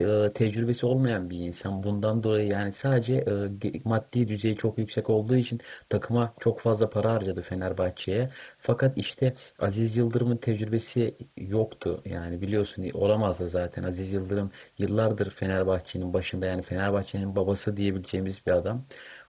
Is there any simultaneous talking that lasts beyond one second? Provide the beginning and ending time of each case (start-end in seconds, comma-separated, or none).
none